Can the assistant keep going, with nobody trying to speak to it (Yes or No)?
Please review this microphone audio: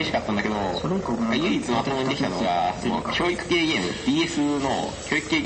Yes